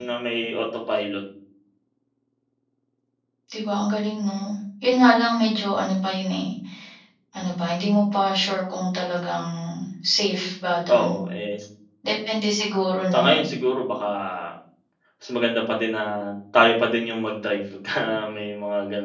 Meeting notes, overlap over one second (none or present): none